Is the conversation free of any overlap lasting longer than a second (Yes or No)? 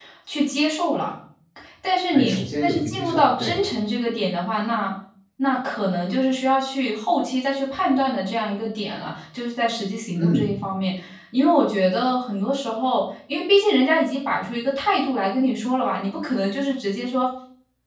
No